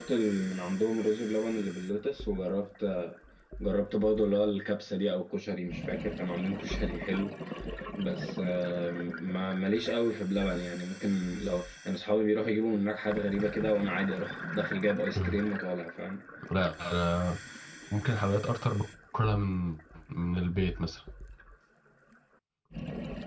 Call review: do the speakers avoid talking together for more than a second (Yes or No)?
Yes